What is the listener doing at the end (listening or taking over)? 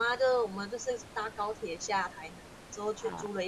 listening